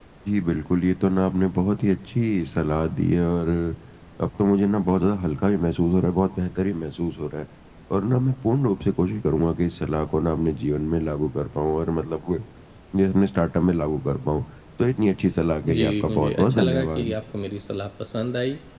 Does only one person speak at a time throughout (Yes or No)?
No